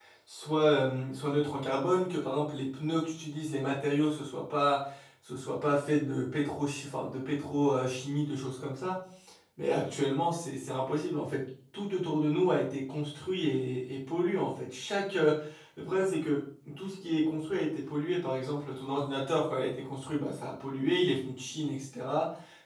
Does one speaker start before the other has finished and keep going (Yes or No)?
No